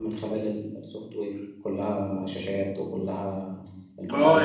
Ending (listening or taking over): listening